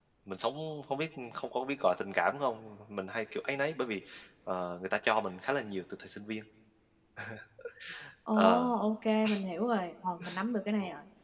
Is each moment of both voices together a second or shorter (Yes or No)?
Yes